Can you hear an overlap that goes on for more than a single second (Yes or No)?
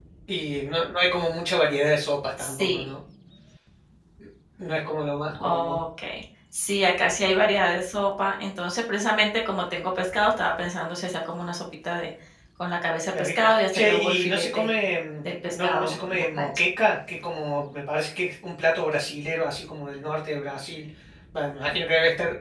Yes